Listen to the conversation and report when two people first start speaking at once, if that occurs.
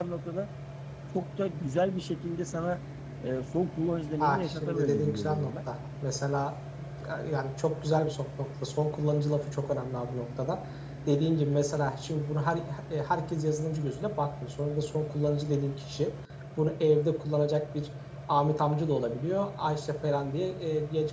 4.2 s

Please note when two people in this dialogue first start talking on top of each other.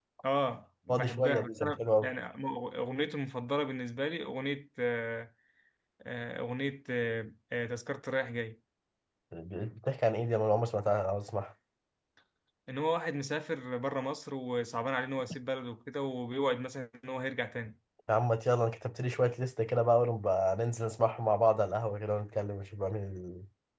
0.9 s

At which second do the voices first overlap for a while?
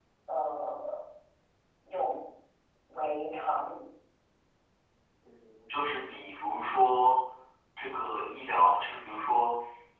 none

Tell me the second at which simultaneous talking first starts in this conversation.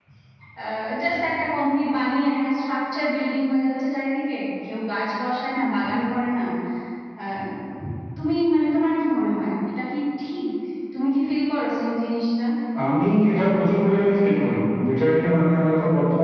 none

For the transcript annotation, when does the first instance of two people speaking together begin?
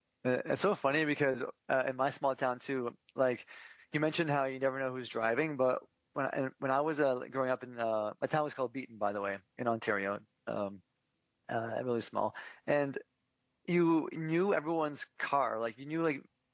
none

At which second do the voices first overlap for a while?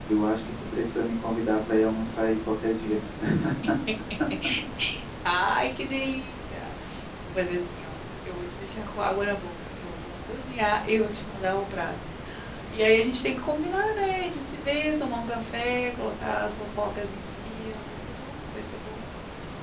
none

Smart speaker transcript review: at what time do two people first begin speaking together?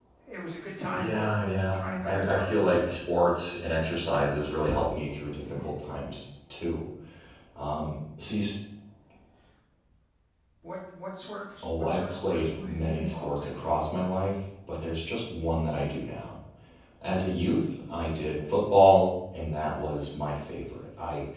0.9 s

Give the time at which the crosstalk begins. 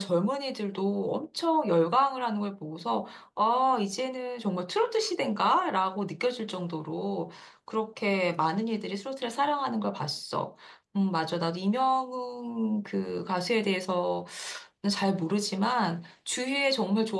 none

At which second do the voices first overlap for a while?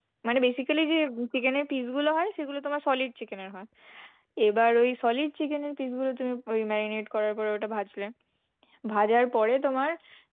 none

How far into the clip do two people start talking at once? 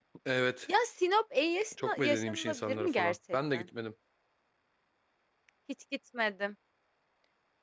1.7 s

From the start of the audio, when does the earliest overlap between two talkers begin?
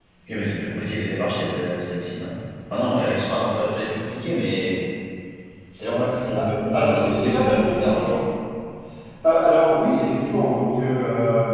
5.9 s

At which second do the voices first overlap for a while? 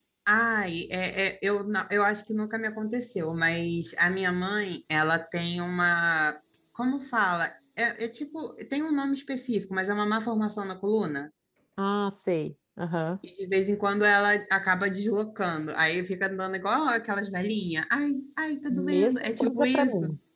18.7 s

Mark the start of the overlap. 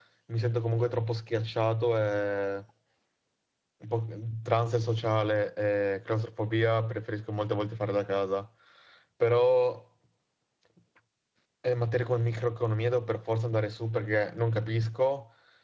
none

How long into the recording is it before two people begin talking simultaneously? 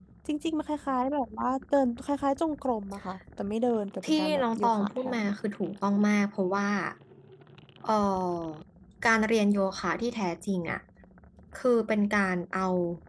4.0 s

